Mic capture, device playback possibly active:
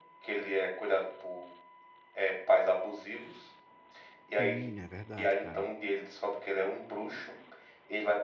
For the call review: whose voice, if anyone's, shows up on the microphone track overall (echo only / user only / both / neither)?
both